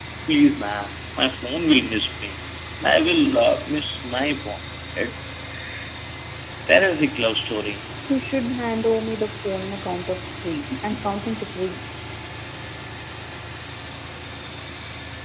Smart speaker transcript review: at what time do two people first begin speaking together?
none

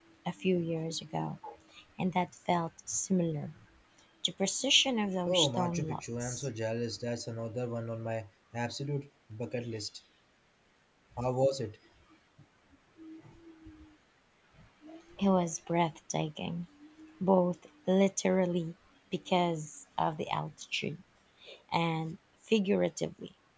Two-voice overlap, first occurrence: 5.3 s

